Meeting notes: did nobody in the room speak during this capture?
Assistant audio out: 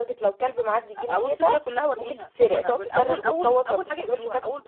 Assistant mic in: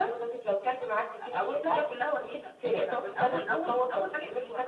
Yes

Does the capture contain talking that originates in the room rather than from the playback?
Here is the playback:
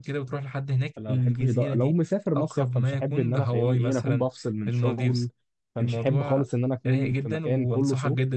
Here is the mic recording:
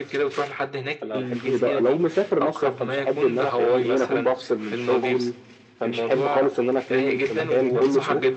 Yes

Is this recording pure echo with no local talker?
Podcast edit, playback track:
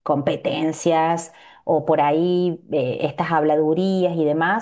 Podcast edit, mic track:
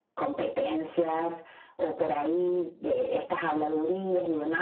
Yes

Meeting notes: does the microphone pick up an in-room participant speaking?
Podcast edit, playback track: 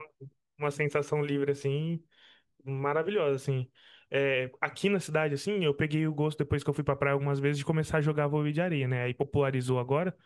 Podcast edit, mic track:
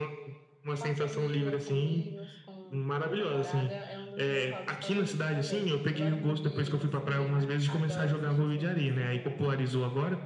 Yes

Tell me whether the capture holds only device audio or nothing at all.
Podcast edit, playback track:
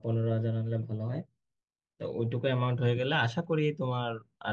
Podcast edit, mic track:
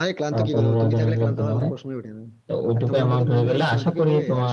No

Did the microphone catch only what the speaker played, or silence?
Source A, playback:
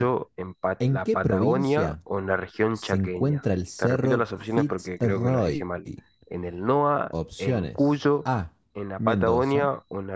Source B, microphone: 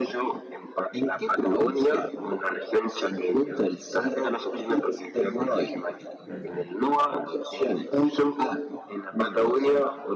No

